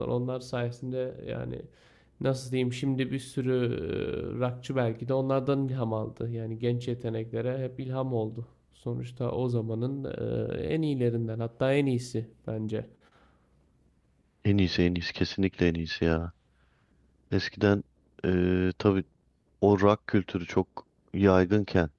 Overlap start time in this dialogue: none

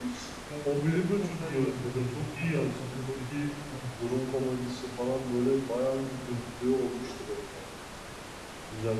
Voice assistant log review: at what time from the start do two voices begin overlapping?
0.8 s

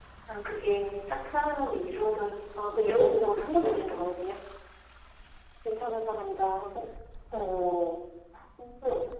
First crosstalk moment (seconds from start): 2.8 s

